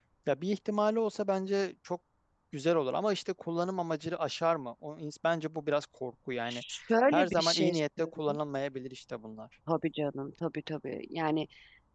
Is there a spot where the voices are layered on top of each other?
Yes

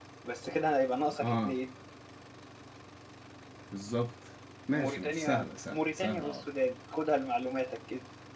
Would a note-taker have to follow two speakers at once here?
Yes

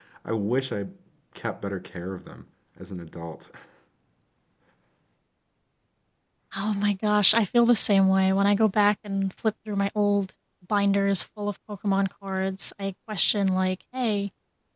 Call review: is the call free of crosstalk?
Yes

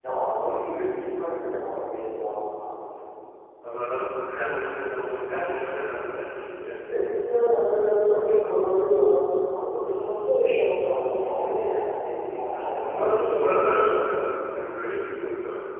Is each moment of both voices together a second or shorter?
No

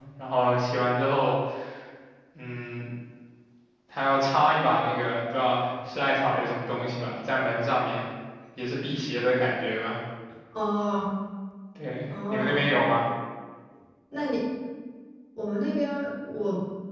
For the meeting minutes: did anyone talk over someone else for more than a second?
No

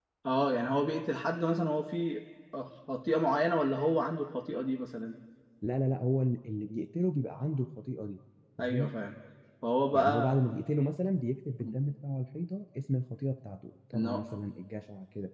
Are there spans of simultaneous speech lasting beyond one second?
No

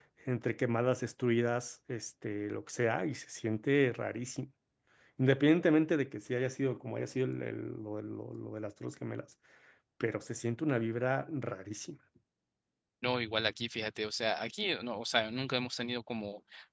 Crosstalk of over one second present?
No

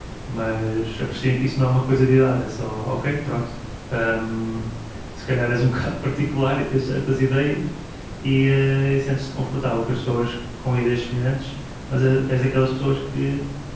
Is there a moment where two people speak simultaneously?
No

